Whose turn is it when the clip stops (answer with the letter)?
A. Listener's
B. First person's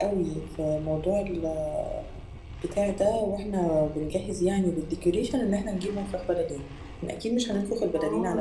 A